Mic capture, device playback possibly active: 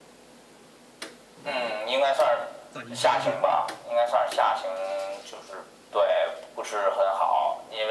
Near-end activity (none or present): present